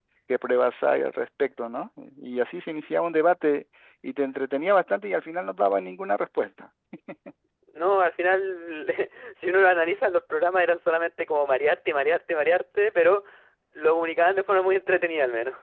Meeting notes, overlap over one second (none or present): none